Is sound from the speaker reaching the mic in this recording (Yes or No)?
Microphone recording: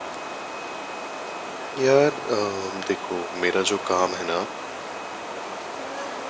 No